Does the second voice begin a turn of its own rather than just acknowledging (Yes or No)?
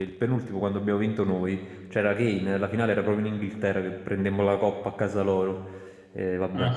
Yes